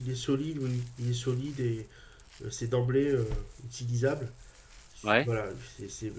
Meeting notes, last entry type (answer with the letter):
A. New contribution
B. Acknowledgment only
B